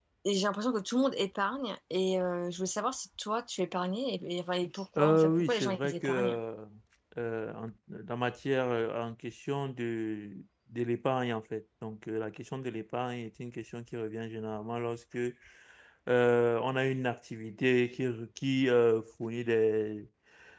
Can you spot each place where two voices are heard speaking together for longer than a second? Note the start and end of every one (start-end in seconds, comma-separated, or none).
5.0-6.4